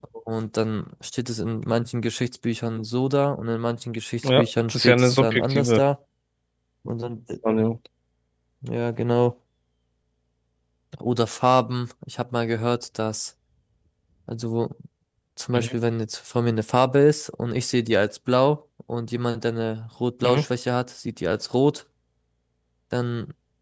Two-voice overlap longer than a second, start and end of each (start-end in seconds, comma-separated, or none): 4.2-5.8